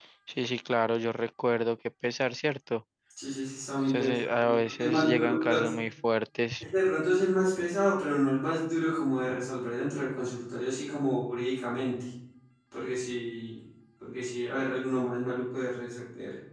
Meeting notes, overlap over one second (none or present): present